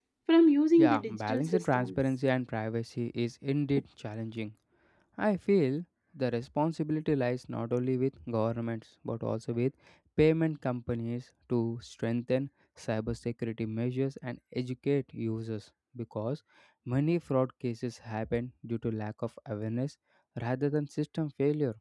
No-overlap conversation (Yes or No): No